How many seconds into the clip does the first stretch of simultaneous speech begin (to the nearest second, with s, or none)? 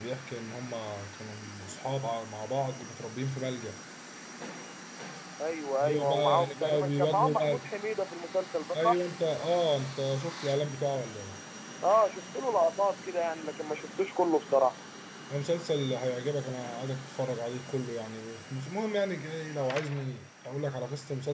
6 s